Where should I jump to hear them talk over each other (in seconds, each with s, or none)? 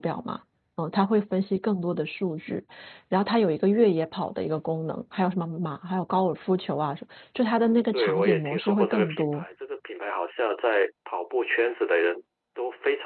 7.5 s